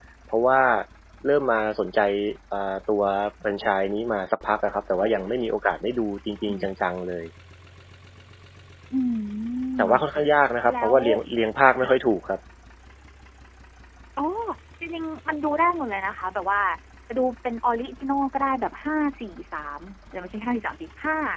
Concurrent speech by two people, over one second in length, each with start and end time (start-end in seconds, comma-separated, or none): none